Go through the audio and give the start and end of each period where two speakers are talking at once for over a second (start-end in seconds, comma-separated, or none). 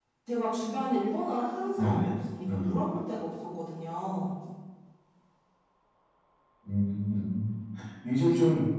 none